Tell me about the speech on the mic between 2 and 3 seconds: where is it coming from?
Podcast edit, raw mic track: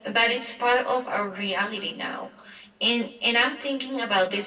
echo only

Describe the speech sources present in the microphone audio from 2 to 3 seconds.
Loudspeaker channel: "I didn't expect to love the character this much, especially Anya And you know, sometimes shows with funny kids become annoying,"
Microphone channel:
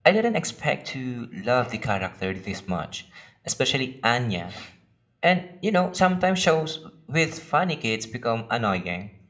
echo only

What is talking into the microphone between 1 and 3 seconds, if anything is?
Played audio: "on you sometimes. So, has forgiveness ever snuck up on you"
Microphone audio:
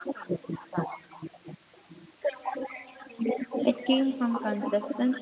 echo only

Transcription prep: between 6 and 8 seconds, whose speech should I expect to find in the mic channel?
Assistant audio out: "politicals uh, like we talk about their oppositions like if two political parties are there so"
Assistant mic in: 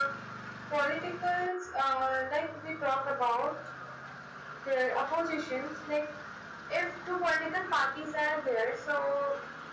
echo only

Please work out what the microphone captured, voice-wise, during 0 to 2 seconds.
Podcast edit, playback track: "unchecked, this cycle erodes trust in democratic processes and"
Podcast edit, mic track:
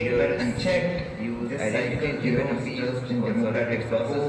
both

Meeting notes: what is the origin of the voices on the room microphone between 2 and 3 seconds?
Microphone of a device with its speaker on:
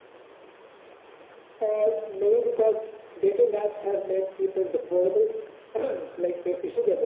echo only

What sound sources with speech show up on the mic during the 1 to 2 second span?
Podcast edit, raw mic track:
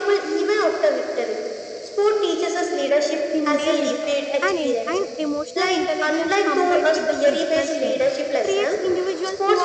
echo only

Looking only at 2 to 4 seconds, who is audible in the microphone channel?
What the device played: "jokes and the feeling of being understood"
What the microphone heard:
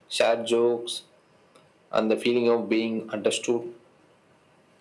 echo only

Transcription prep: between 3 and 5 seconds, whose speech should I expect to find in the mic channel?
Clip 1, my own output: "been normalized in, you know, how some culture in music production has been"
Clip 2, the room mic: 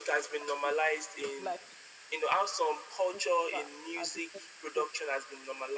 both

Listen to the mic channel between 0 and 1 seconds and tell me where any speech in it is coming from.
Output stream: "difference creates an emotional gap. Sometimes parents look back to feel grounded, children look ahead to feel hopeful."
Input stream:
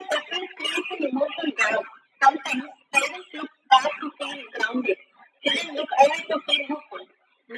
echo only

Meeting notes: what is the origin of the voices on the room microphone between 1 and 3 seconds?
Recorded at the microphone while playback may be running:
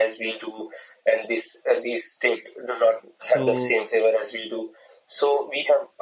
echo only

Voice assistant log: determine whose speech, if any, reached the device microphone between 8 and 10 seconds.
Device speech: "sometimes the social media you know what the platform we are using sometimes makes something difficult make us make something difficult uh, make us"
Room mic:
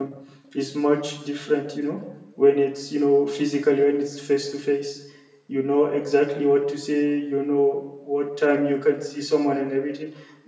user only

